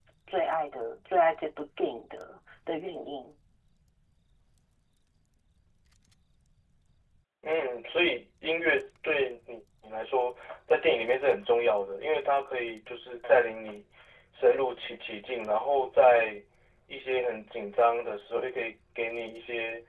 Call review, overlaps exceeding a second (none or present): none